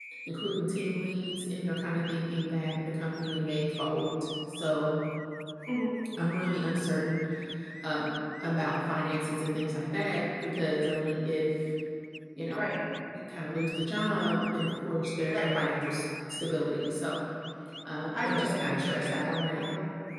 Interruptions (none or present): present